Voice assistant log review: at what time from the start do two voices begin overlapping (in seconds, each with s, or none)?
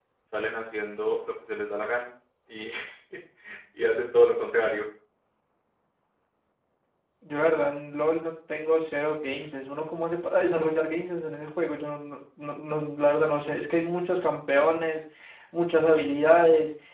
none